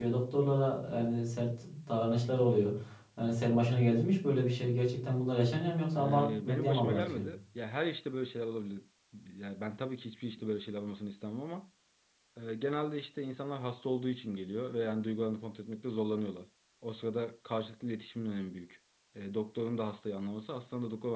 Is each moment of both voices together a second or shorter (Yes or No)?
No